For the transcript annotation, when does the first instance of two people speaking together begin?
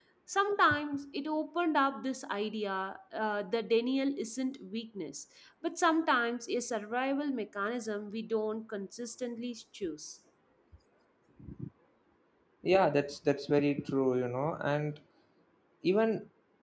none

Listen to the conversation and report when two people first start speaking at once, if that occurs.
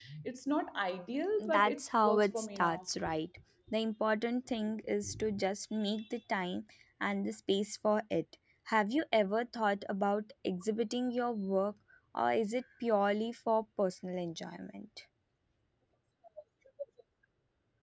1 s

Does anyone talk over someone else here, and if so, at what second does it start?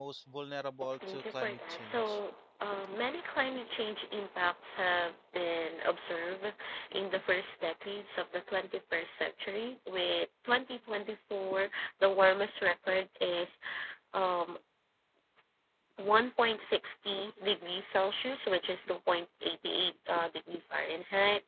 1 s

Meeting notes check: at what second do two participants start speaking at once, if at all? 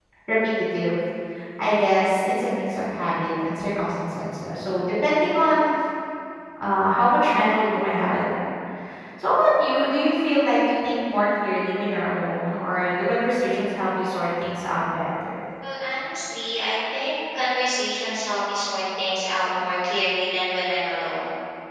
none

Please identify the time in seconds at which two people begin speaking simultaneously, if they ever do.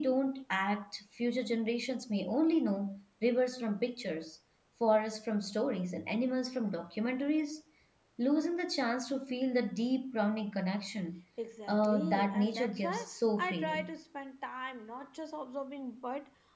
12 s

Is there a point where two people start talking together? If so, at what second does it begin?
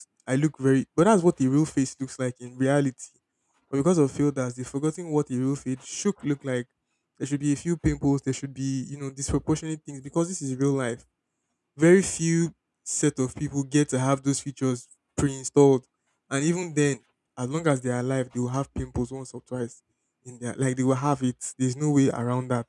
none

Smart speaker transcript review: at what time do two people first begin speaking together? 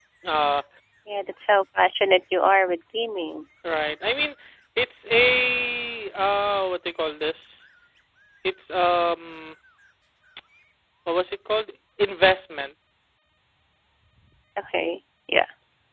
none

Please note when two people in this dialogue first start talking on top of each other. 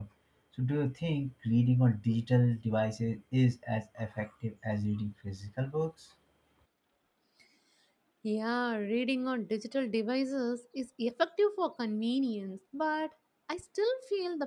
none

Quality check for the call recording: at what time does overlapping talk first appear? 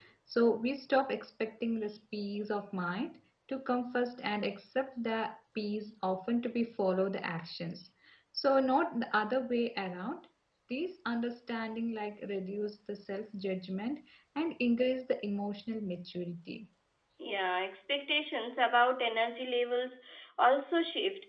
none

